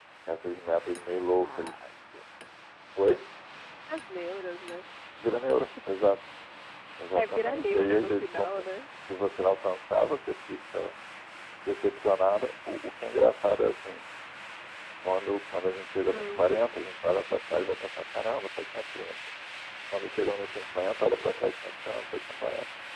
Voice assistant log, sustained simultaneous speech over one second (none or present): present